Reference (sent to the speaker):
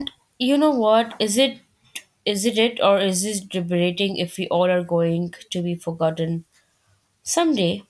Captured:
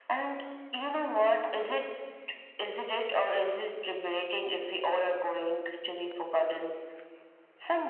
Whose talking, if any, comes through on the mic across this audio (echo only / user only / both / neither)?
echo only